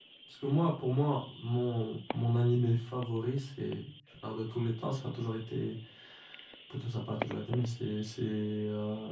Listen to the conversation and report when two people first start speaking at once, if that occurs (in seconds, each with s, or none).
none